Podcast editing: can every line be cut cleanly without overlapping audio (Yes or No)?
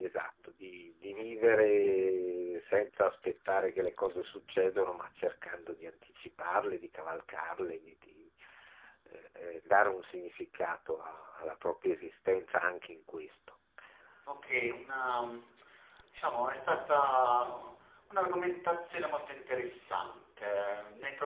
Yes